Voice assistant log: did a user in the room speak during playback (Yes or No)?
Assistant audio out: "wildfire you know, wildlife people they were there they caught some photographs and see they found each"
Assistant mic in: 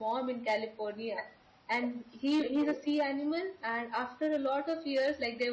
Yes